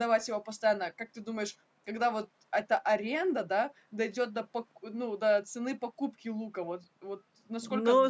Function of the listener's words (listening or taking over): taking over